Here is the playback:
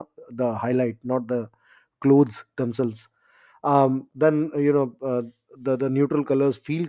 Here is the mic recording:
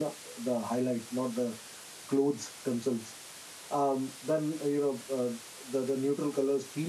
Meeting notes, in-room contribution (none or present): none